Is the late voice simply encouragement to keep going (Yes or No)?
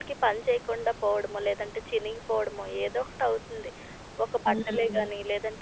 Yes